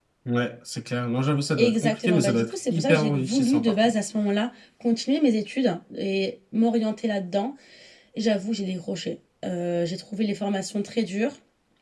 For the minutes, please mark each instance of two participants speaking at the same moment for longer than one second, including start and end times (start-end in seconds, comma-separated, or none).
1.6-3.8